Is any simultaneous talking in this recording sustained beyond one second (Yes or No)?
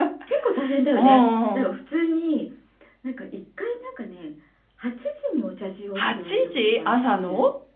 Yes